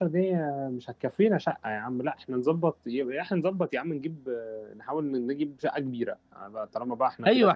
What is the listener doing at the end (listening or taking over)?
taking over